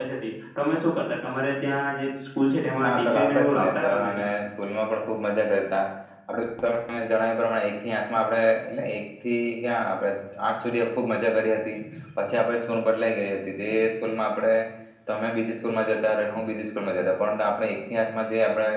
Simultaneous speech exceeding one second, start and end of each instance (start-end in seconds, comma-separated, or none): 2.8-4.3